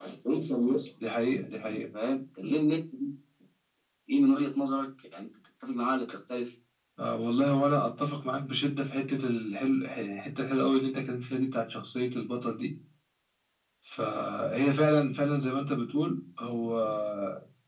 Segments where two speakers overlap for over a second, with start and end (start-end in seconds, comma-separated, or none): none